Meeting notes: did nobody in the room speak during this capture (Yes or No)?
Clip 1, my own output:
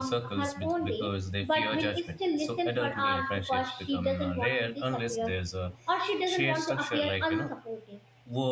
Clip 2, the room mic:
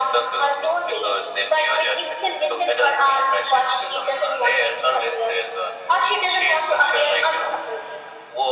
Yes